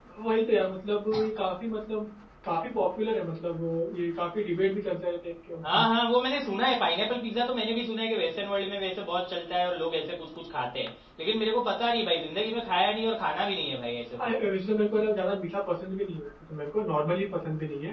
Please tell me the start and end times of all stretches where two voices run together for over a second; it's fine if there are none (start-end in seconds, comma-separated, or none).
none